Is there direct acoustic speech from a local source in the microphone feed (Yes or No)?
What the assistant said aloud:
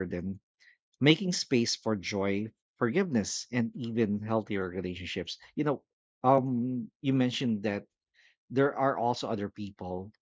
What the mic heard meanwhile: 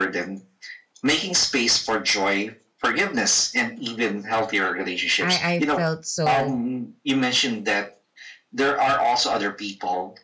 Yes